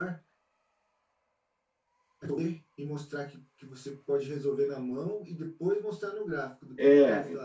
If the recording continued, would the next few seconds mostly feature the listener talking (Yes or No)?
No